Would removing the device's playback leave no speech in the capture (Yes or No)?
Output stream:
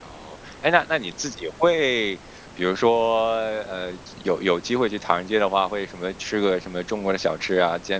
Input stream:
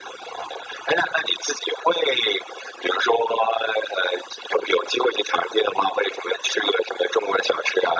Yes